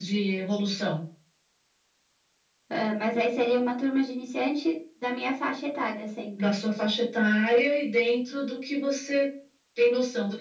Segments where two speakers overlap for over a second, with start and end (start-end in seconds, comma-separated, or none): none